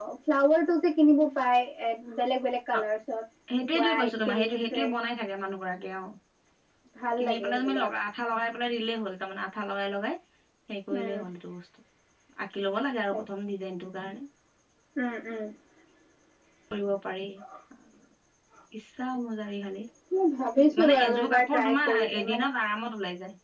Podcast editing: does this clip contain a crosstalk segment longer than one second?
Yes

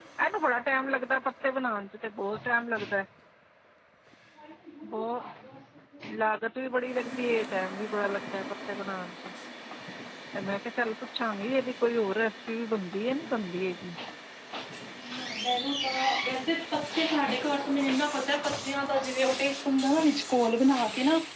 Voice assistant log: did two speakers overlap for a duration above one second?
No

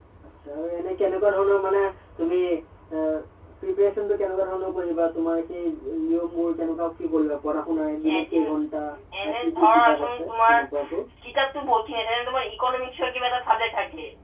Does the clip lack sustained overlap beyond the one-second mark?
No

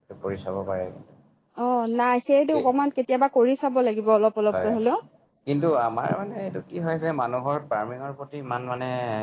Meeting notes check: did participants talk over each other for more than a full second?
No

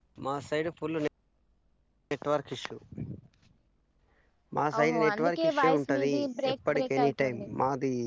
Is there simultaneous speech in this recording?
Yes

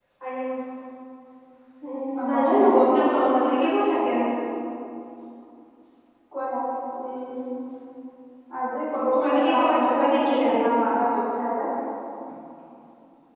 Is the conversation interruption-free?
No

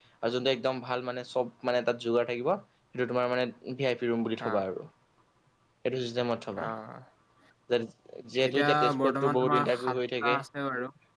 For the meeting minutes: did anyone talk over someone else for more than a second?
Yes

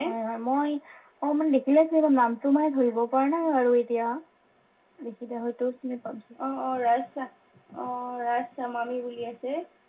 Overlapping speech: No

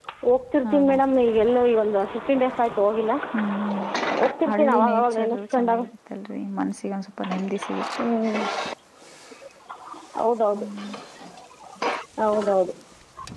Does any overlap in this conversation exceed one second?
Yes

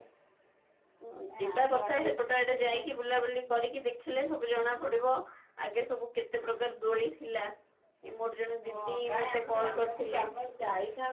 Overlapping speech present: Yes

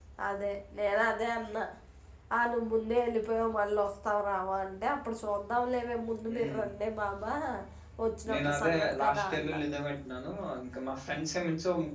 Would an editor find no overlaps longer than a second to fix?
No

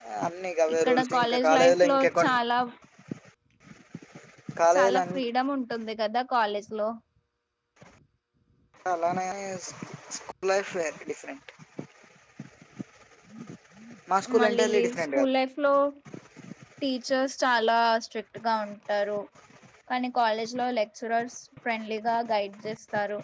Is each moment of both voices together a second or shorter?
No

